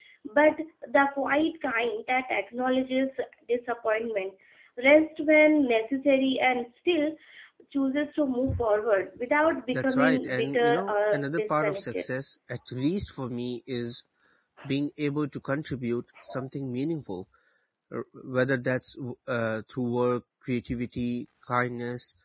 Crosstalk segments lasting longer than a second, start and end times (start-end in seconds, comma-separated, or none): 9.7-12.1